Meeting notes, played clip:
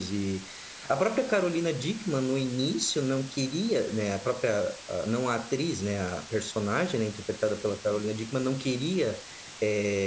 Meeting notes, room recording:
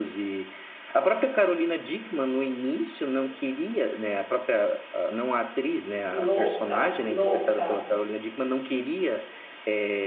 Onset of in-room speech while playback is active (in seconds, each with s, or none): 6.1 s